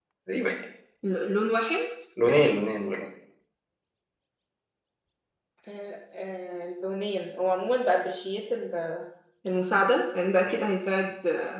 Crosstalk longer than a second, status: none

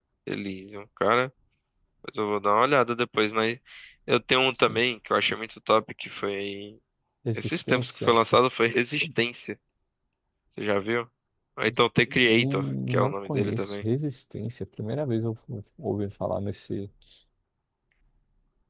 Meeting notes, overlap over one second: present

